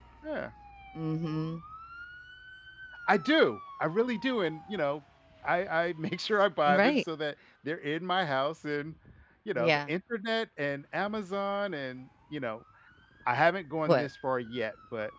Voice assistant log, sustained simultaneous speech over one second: none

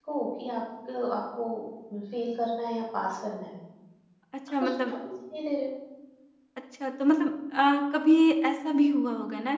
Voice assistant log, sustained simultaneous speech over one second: none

